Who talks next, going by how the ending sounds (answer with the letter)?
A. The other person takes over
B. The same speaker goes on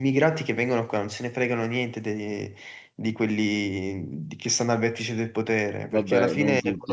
A